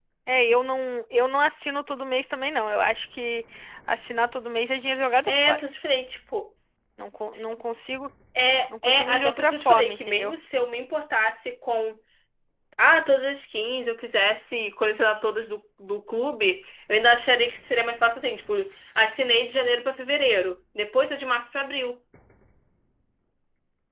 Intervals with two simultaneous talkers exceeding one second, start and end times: 8.8-10.3

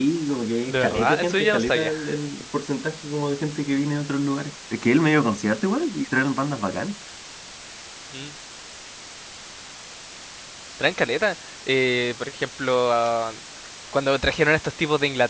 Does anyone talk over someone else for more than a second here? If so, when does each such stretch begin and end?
0.7-1.9

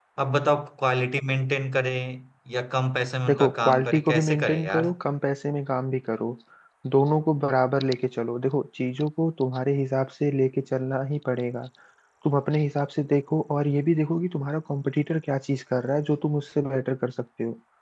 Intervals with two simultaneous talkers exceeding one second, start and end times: 3.3-4.9

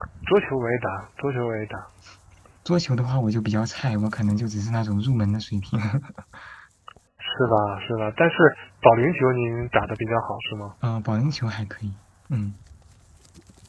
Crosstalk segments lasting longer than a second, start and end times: none

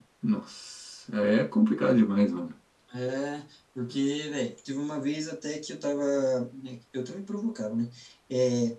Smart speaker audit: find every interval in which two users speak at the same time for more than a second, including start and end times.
none

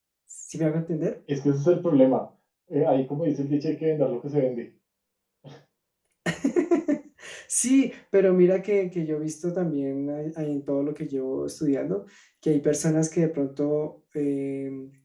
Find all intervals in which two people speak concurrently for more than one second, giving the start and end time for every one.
none

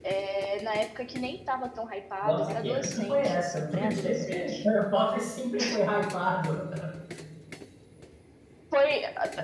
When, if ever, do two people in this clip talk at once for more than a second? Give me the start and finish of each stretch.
2.2-4.7

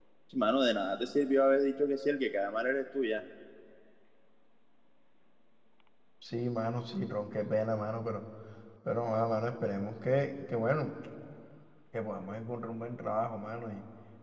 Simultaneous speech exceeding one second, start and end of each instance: none

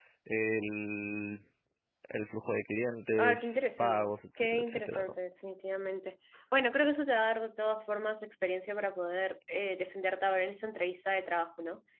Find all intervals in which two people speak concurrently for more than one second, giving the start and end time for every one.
3.2-5.1

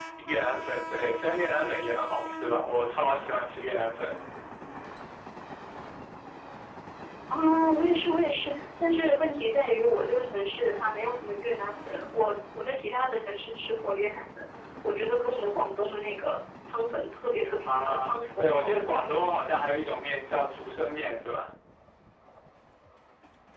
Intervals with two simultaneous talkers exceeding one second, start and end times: 17.6-19.2

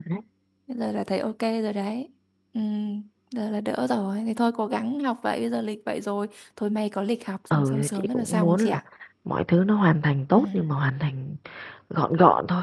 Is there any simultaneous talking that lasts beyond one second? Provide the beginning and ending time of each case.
7.5-8.8

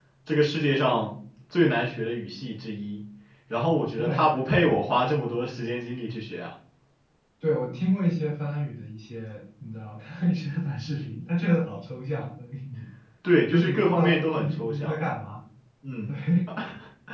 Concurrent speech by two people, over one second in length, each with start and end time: 13.5-14.9

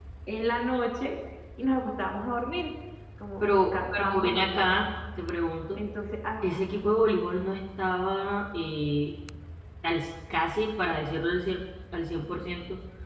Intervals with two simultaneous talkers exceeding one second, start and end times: 3.4-4.7

